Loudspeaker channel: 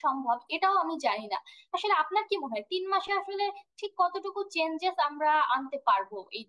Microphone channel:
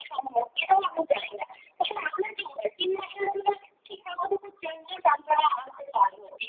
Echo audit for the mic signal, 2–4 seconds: echo only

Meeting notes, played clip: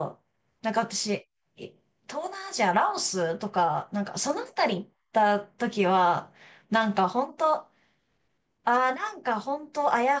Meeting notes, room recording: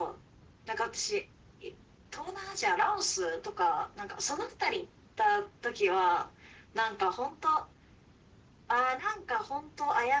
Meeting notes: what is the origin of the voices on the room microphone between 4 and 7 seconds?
echo only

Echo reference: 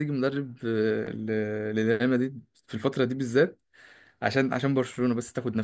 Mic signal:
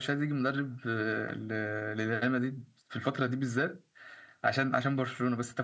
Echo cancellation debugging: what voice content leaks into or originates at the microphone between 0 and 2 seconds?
echo only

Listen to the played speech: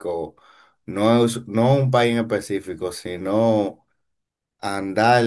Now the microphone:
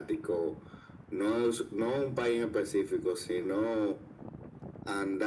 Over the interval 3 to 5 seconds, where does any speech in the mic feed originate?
echo only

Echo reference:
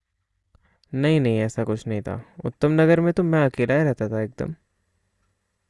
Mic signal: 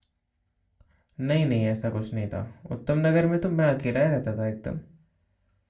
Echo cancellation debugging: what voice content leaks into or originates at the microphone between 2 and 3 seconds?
echo only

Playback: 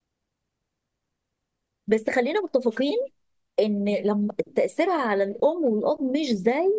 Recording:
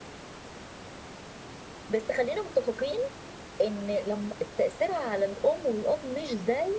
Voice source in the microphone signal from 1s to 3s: echo only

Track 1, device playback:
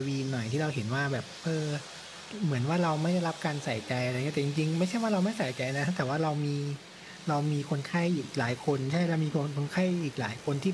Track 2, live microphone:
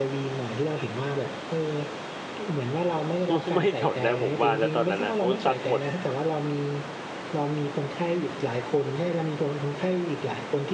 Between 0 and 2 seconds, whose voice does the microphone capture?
echo only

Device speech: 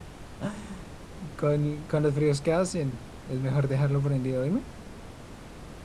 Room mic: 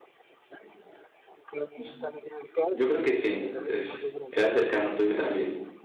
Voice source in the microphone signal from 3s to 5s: both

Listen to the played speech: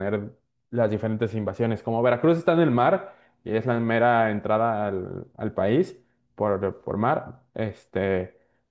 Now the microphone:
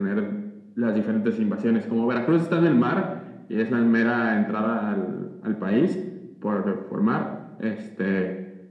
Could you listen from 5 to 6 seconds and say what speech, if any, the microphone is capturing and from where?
echo only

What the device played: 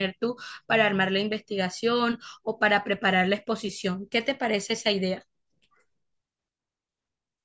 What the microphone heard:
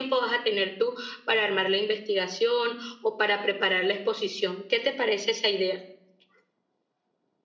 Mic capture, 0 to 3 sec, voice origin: echo only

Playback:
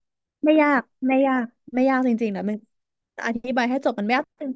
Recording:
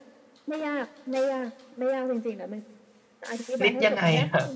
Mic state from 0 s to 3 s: echo only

